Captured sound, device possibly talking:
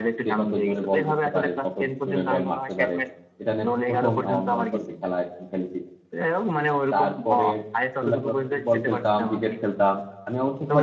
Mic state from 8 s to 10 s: both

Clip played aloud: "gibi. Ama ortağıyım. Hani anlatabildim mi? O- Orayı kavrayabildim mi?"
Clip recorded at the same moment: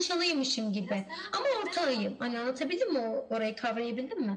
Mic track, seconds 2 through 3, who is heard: both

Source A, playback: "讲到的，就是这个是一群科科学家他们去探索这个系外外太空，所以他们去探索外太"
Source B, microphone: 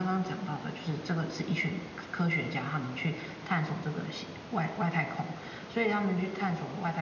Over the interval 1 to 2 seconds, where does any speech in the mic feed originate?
echo only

